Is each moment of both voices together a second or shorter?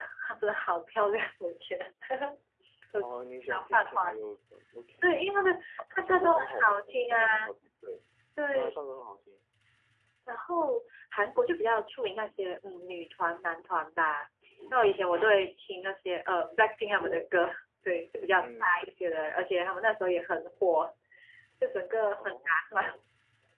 No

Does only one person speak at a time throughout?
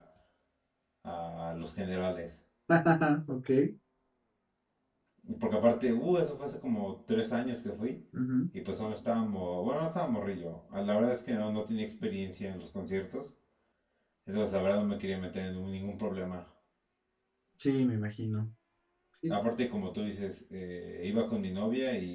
Yes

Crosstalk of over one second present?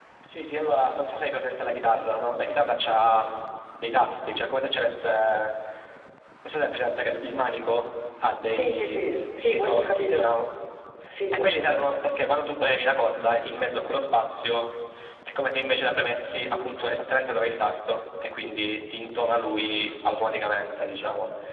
Yes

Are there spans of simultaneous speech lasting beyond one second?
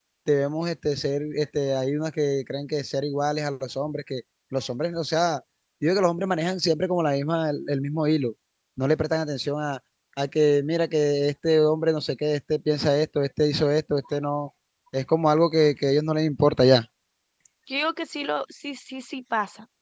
No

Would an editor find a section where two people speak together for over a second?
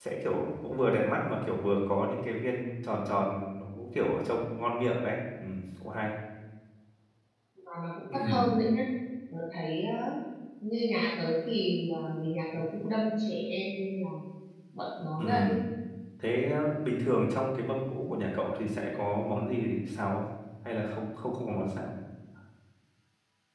No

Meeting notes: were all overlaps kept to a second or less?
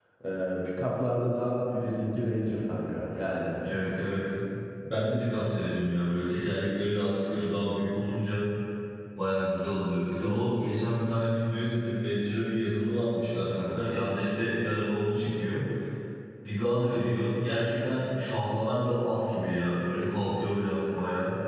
Yes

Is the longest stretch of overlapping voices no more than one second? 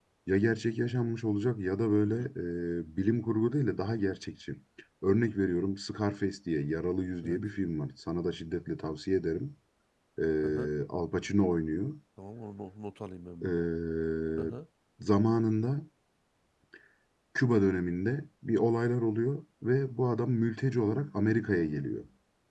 Yes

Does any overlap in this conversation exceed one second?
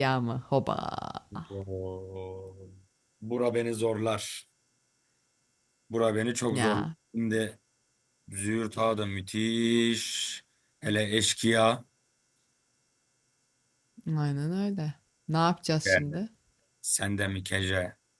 No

